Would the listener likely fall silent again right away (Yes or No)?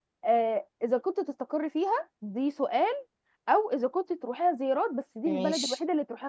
Yes